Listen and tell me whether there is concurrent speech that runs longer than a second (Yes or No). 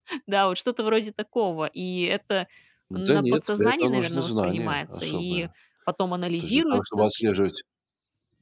Yes